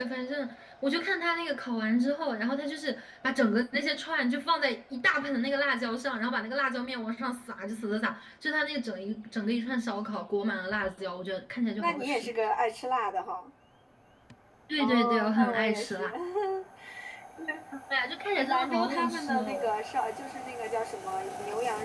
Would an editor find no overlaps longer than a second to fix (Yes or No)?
No